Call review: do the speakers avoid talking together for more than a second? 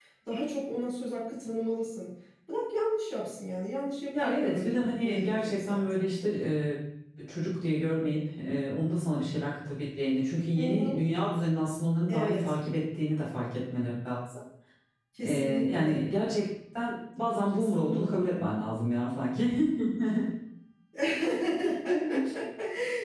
No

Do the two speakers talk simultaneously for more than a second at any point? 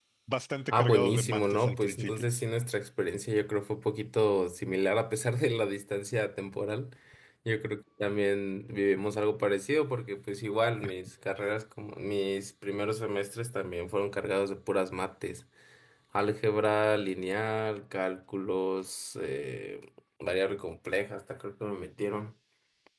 Yes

